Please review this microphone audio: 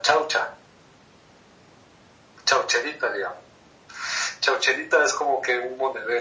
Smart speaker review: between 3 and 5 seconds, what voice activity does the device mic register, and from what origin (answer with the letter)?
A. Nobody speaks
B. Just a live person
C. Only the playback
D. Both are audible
C